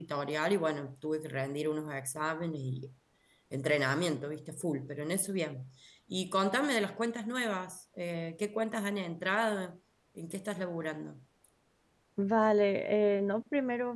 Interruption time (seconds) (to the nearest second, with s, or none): none